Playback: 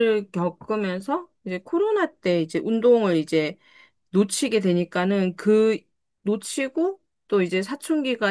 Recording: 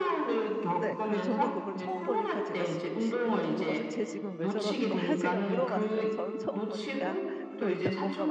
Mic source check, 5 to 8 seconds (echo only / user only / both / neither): both